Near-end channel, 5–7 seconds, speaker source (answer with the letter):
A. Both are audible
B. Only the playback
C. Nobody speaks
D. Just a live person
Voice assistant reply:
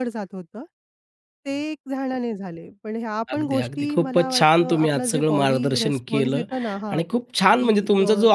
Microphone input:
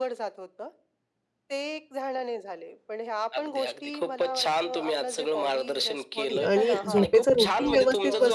A